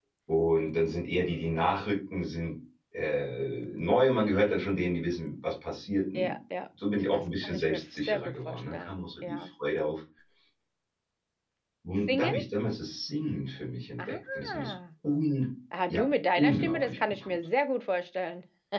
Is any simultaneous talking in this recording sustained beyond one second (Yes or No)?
Yes